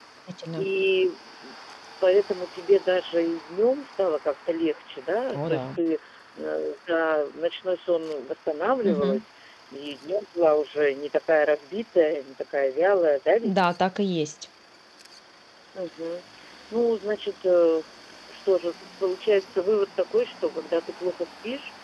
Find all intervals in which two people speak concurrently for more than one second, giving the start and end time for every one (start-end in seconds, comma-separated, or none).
none